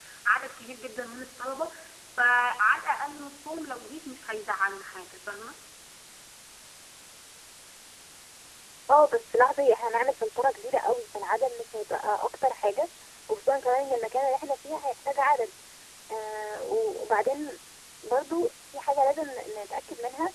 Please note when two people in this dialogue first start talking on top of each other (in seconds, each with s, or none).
none